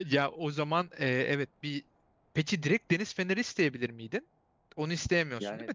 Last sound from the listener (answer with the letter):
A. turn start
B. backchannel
A